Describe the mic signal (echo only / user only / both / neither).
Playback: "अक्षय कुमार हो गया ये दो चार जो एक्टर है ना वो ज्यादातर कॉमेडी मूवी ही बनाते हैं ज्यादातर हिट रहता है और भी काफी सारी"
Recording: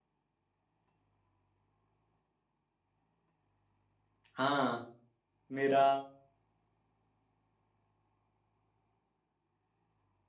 user only